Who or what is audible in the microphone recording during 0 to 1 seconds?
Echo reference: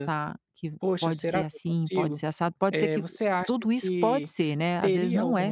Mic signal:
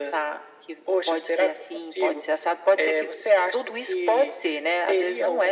echo only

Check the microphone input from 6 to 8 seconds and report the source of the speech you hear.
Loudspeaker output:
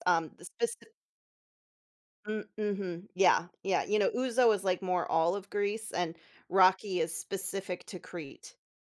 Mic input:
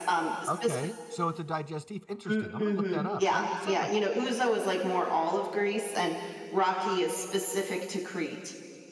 echo only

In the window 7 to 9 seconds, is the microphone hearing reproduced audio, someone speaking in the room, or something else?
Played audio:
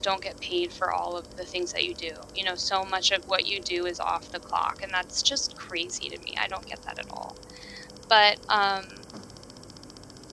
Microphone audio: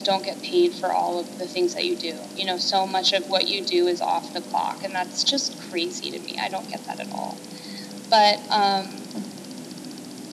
echo only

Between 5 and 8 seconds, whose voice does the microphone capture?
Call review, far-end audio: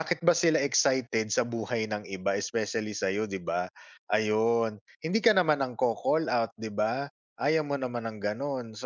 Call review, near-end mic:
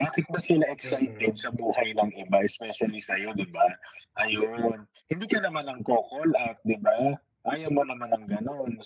echo only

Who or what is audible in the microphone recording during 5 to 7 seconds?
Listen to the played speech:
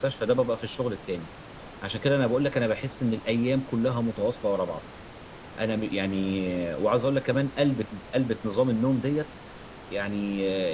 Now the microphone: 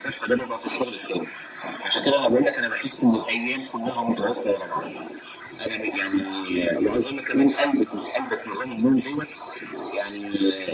echo only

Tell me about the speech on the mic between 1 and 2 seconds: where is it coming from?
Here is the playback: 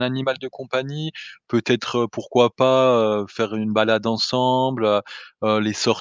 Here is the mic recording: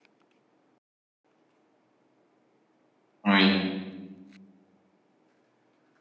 neither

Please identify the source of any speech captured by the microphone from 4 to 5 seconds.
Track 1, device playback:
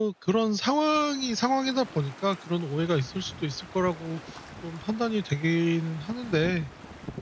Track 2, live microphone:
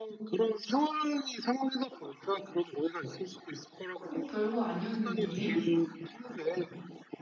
both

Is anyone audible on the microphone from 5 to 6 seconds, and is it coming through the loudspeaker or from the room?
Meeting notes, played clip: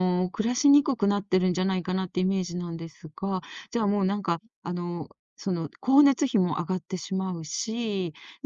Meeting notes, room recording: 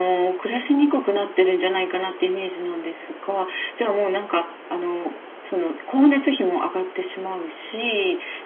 echo only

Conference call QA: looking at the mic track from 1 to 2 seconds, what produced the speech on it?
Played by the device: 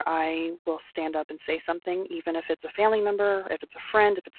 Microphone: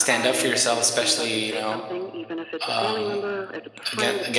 both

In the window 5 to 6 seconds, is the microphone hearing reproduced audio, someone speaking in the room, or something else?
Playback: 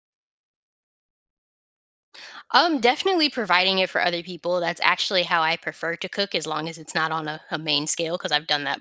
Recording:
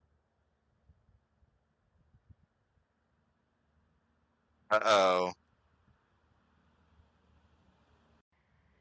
user only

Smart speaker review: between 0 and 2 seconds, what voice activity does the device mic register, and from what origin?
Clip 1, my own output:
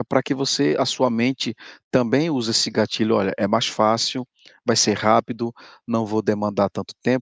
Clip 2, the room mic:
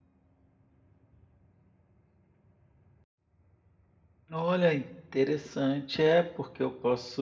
neither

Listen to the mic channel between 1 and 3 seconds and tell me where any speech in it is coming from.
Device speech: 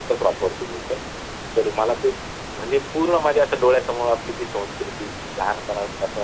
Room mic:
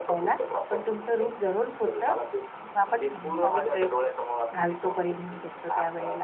both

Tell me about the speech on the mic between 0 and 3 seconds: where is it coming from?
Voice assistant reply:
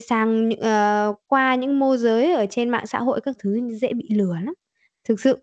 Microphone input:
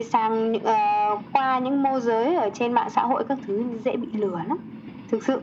echo only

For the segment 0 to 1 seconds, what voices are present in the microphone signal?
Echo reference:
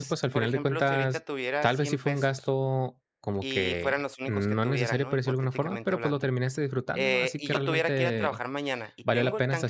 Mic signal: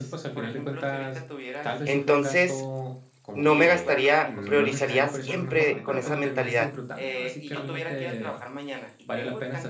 echo only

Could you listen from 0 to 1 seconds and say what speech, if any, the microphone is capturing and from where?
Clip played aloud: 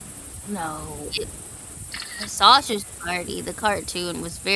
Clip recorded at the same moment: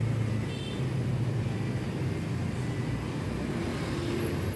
neither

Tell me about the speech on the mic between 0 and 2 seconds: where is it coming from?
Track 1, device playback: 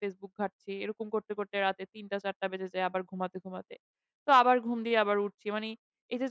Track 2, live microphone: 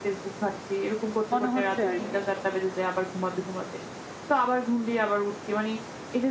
both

